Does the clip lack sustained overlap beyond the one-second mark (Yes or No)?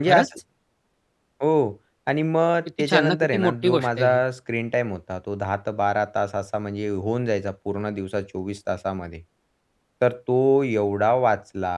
No